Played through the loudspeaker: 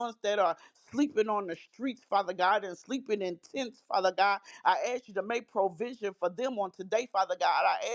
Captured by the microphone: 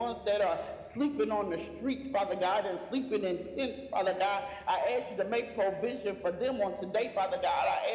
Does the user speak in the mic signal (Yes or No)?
No